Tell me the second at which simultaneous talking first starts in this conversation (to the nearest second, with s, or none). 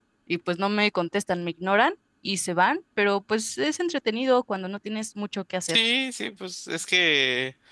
none